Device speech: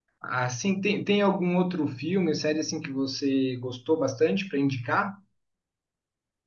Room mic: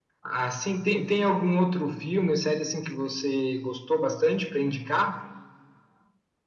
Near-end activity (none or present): none